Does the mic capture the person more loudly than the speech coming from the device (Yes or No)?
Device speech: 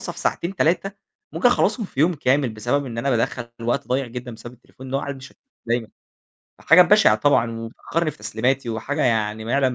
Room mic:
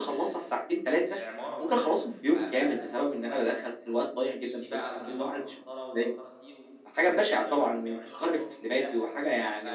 No